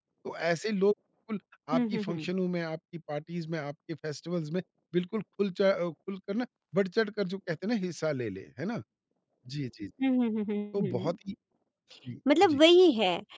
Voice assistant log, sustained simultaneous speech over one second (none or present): none